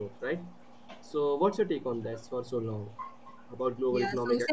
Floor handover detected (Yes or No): Yes